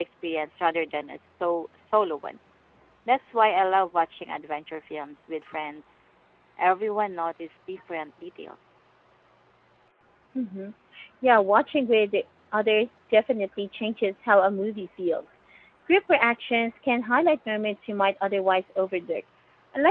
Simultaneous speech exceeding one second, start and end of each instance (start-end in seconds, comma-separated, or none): none